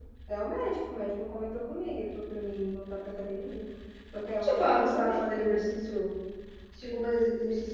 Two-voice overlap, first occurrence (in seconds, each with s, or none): 4.4 s